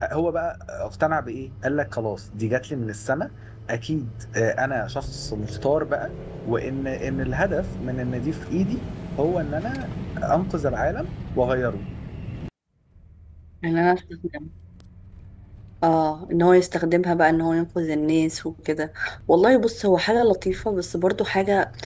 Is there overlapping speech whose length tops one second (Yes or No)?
No